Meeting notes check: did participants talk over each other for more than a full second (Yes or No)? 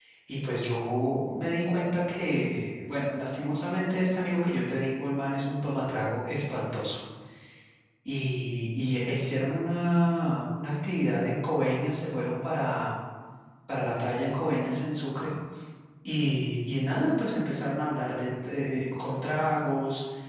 No